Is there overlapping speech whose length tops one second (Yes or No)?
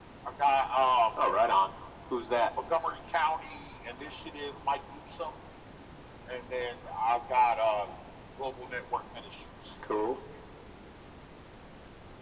No